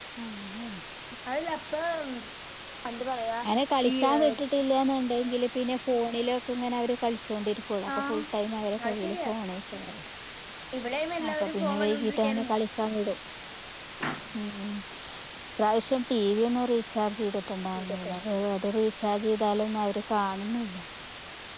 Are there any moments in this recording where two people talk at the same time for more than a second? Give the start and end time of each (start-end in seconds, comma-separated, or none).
11.3-12.5